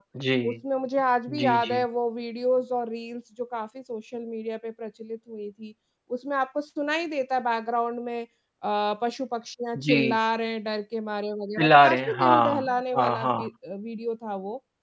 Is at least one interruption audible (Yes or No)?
Yes